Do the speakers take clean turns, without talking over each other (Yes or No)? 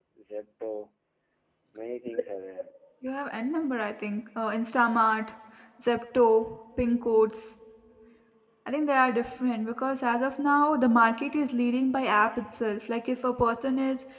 Yes